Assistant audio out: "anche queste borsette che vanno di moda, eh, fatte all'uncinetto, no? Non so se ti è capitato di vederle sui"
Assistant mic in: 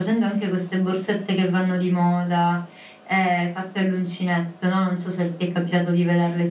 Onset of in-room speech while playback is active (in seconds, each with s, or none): none